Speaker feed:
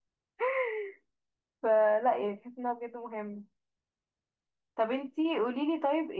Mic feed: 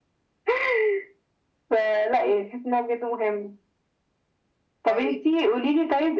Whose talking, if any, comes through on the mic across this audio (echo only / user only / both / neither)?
both